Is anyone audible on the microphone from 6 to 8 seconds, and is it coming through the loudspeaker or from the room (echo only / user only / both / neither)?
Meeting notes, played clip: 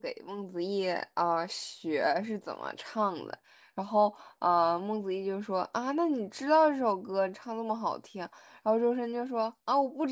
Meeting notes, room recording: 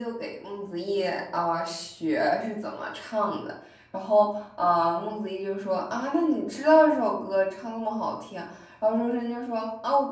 echo only